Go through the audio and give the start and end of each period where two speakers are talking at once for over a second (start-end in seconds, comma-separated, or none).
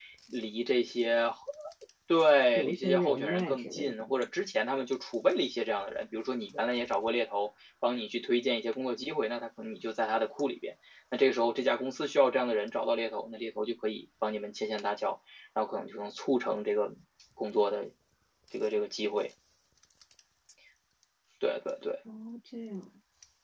2.5-3.9